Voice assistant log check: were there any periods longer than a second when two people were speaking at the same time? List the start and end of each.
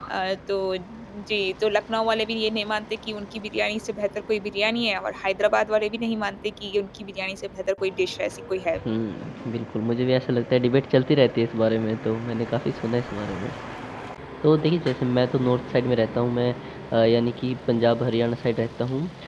none

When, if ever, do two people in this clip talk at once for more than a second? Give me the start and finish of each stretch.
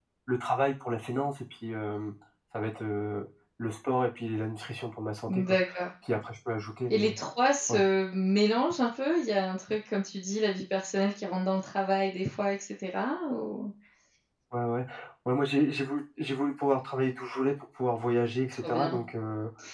none

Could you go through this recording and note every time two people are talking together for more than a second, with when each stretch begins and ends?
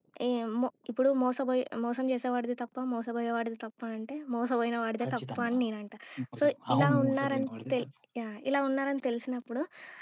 6.4-7.8

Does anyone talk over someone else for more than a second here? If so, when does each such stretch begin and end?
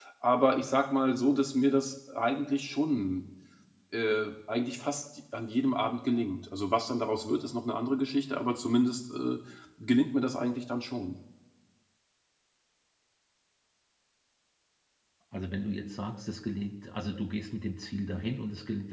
none

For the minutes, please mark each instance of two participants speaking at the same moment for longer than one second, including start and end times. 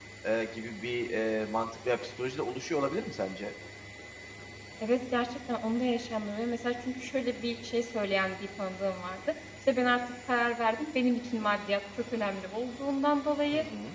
none

